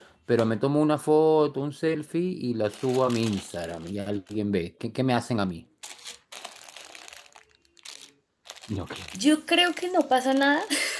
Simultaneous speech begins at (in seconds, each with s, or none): none